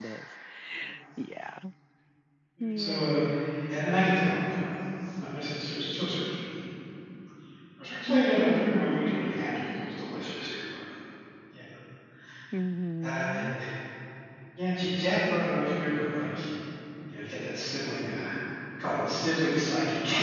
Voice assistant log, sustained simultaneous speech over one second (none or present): present